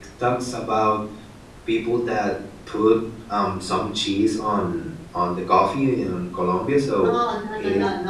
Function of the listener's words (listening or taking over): taking over